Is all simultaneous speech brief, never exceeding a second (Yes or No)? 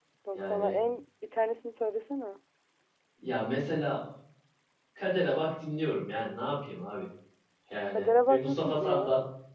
No